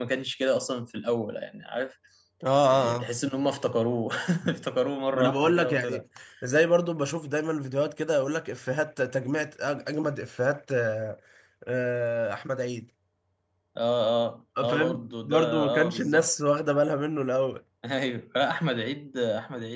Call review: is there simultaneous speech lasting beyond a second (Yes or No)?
Yes